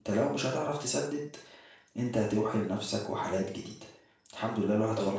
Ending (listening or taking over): taking over